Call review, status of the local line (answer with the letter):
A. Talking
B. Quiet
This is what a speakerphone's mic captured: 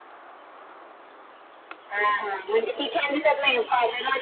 B